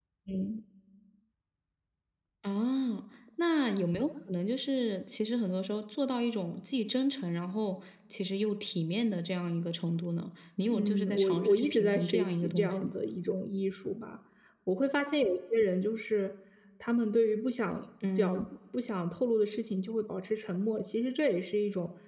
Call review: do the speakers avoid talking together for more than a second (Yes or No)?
No